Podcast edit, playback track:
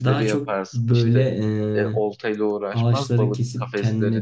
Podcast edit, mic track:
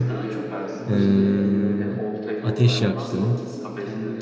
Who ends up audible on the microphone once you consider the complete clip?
both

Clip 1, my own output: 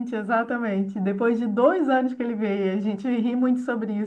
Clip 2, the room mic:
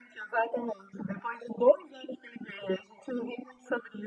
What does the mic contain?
echo only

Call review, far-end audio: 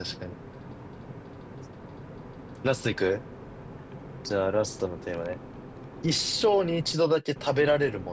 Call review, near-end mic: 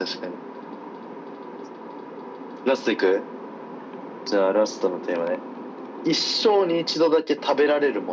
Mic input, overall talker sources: echo only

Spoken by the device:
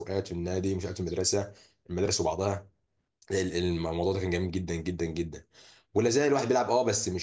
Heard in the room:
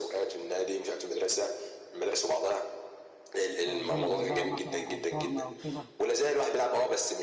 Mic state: both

